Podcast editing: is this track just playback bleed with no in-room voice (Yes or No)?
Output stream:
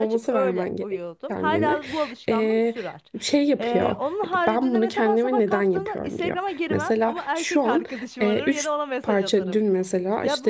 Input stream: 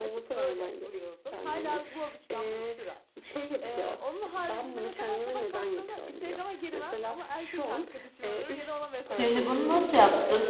No